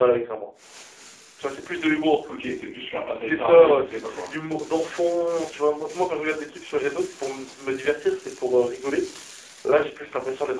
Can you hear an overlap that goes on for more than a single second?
Yes, from 3.1 s

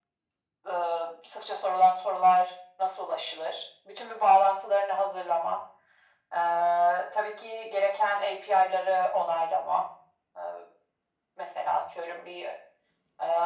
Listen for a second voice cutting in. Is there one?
No

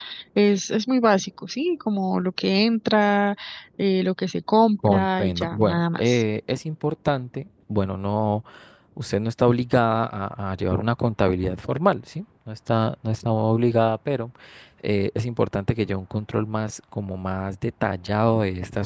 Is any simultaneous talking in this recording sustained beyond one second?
Yes, from 4.8 s

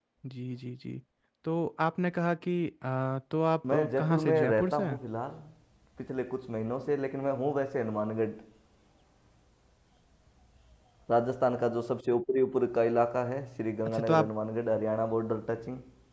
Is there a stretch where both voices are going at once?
Yes, from 3.7 s

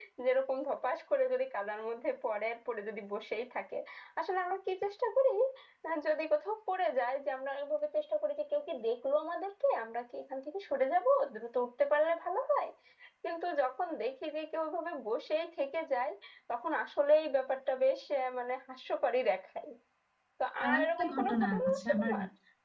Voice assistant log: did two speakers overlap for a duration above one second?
Yes, from 20.6 s

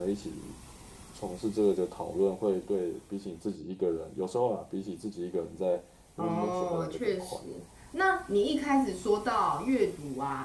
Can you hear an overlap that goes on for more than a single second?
Yes, from 6.2 s

